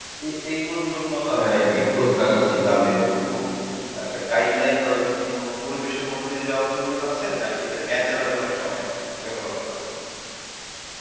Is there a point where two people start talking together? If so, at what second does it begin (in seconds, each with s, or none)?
1.3 s